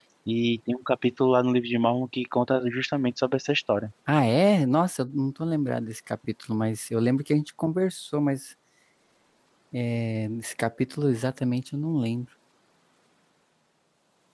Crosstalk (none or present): none